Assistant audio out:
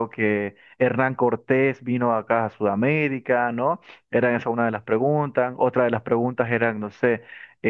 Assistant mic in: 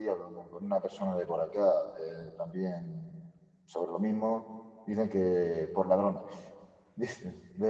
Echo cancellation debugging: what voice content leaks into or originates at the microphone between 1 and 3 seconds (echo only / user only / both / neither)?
user only